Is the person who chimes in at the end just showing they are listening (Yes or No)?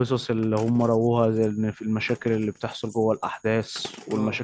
Yes